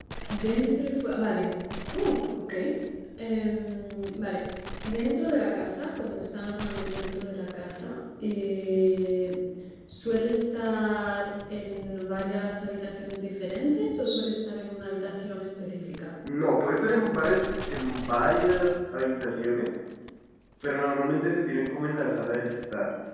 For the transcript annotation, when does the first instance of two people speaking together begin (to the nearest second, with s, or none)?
none